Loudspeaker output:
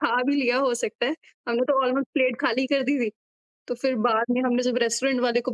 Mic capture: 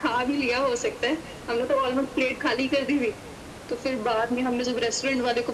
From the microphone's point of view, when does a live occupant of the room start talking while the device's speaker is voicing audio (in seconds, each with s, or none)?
none